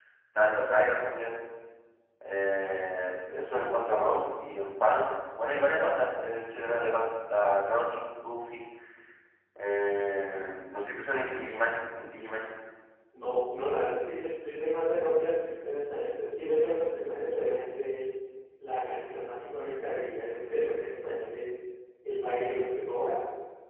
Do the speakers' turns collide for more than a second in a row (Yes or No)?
No